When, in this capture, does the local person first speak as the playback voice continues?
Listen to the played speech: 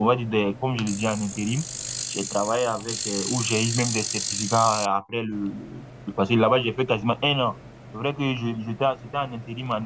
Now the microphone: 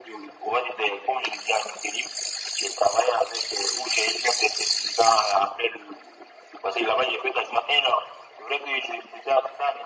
none

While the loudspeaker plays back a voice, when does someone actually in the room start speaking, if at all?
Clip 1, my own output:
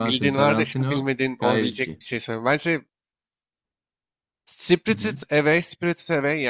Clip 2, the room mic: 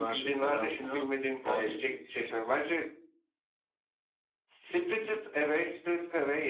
none

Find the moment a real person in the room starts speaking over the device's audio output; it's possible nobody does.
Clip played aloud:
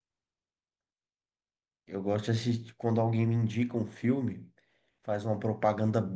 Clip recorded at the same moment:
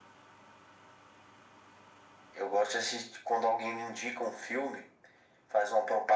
none

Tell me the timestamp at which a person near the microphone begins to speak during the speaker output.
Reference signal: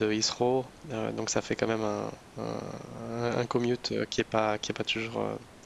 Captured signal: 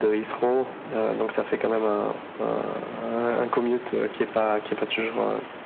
none

